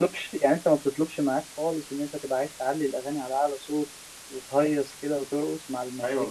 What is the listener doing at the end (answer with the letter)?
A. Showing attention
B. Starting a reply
B